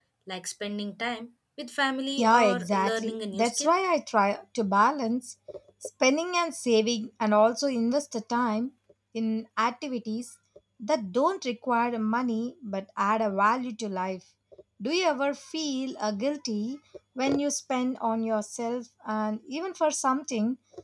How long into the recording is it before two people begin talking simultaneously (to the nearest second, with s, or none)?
2 s